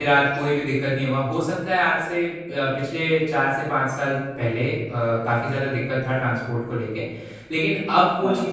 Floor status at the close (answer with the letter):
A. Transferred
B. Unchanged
B